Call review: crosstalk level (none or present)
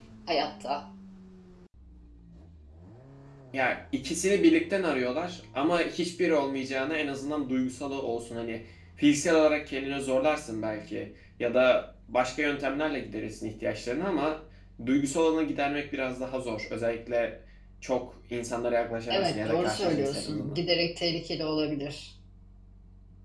present